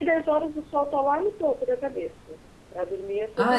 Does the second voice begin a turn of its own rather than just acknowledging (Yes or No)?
No